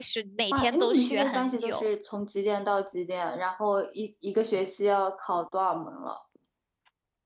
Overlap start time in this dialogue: 0.5 s

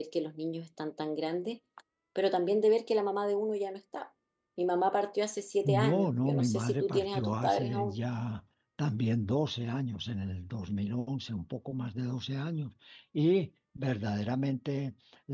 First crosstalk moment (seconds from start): 5.6 s

